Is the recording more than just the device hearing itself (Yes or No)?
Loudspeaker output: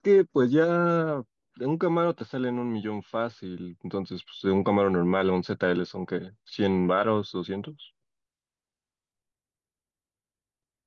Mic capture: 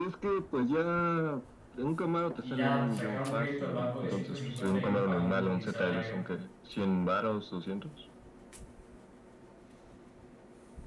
Yes